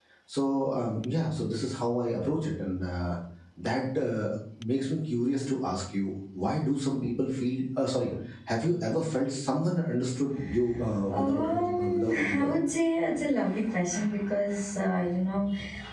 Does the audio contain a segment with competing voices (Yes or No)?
Yes